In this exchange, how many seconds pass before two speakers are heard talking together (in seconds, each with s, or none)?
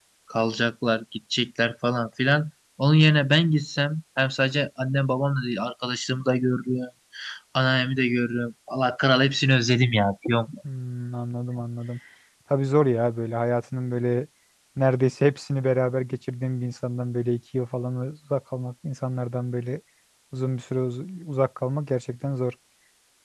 none